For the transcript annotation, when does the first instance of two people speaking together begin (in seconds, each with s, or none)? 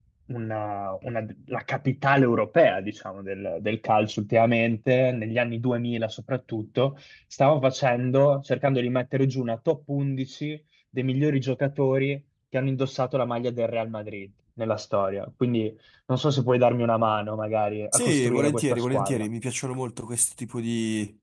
17.9 s